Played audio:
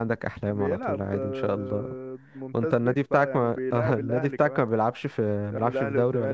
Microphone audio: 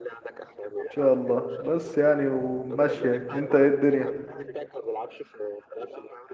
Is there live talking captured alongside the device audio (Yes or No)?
Yes